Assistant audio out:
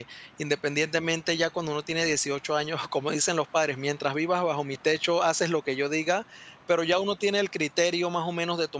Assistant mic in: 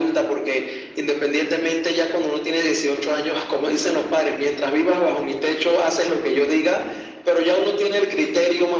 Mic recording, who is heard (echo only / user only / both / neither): echo only